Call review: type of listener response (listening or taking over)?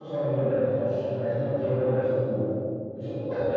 taking over